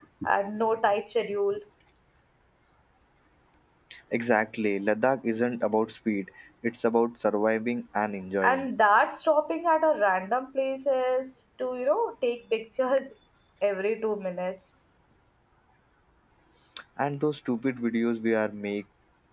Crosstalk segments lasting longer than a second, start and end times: none

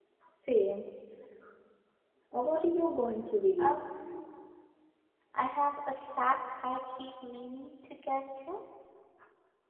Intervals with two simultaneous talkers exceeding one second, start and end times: none

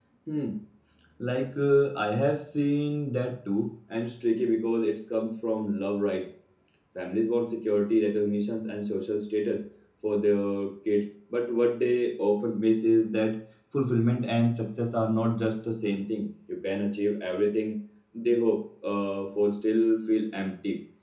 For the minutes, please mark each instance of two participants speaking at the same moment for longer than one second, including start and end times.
none

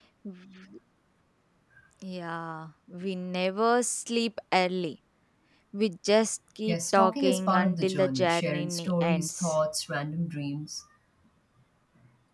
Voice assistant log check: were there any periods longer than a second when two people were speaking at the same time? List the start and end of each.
6.7-9.6

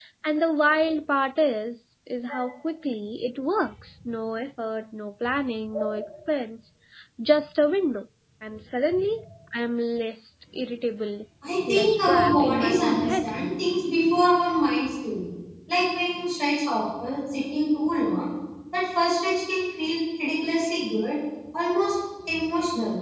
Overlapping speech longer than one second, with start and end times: 11.7-13.3

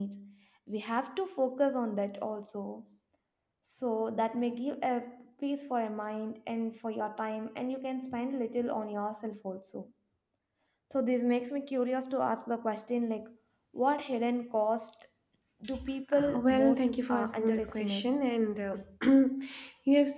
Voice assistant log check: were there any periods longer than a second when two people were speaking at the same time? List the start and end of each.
16.1-18.1

